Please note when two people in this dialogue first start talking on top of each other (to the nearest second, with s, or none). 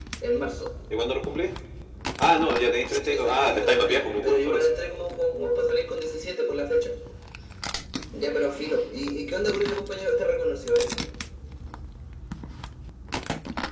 3 s